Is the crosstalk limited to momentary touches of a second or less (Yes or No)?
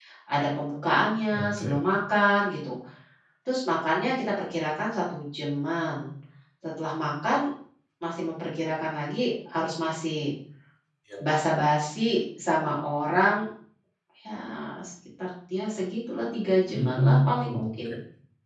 No